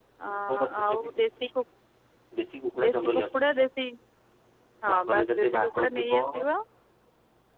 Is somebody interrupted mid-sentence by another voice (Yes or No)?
Yes